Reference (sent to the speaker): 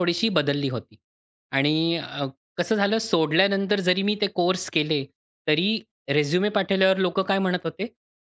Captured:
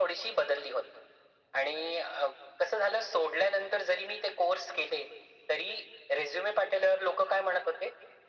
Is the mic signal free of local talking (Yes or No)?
Yes